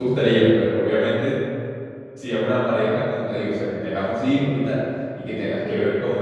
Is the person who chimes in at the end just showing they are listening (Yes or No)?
Yes